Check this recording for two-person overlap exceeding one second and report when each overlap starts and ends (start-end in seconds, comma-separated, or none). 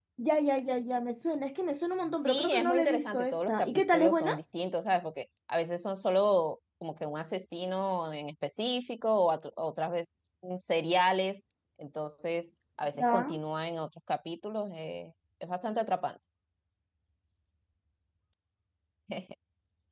2.2-4.4